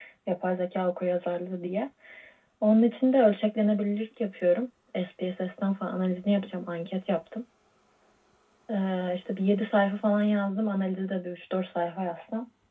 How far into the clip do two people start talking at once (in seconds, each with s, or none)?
none